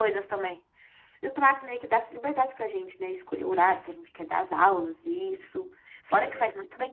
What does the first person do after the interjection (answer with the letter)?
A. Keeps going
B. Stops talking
A